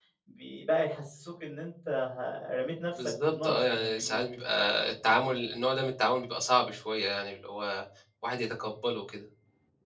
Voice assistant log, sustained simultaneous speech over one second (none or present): present